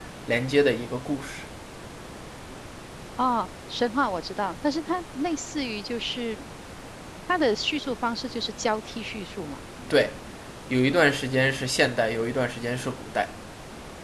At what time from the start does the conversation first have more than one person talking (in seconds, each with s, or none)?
none